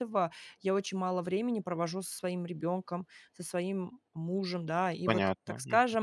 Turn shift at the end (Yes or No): No